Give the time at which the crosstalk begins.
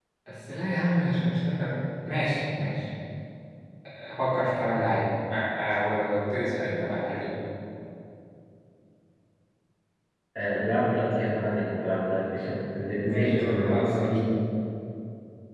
13.1 s

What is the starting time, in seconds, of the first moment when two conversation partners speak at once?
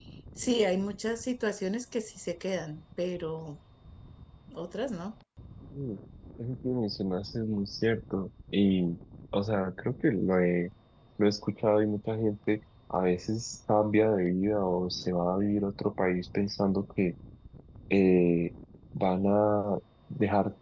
none

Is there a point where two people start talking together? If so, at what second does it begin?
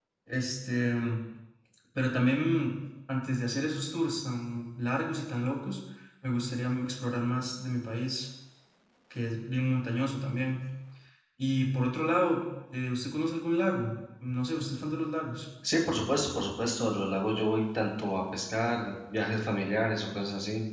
none

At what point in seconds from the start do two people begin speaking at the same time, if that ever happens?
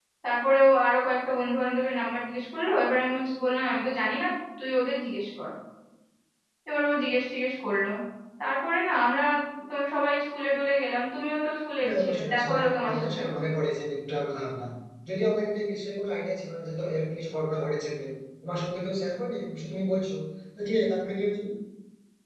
11.8 s

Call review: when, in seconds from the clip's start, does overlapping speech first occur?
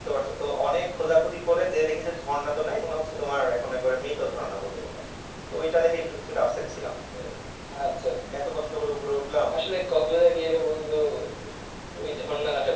none

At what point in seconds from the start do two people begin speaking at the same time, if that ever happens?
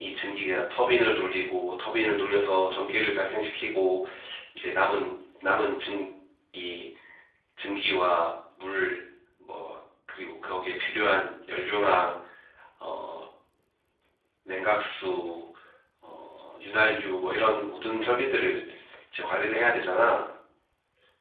none

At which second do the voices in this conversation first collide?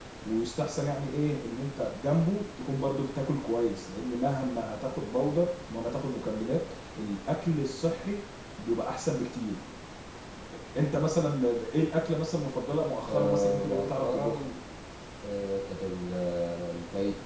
13.1 s

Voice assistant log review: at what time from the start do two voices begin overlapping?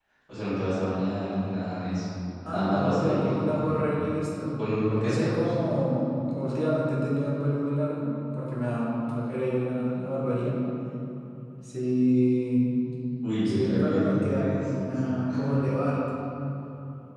2.4 s

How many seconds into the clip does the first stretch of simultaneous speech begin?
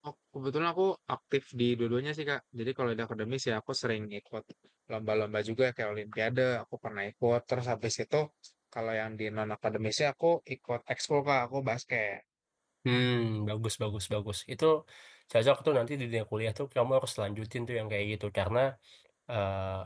none

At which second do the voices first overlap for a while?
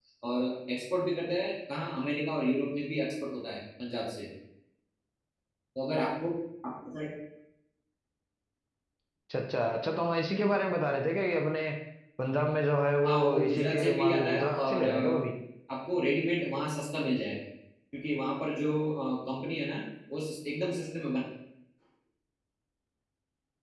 13.1 s

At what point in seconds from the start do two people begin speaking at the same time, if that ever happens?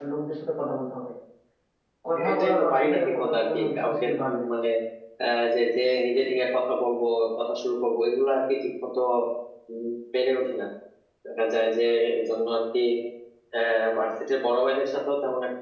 2.3 s

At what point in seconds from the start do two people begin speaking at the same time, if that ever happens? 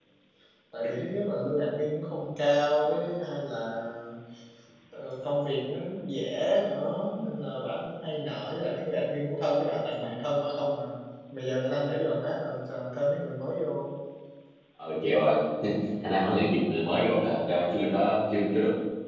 none

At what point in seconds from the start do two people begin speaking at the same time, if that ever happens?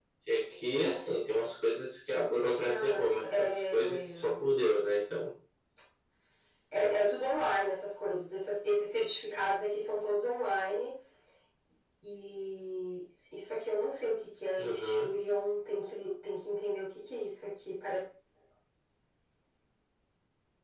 2.6 s

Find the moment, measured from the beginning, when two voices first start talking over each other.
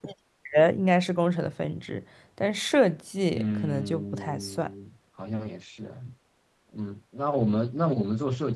3.3 s

